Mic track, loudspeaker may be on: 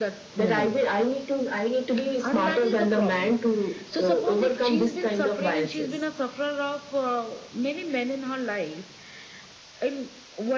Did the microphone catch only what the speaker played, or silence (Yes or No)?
No